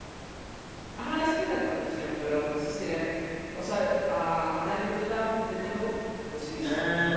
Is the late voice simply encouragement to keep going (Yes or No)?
No